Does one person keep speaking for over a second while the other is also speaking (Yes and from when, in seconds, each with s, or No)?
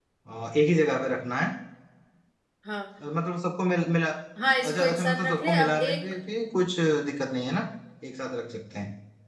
Yes, from 4.7 s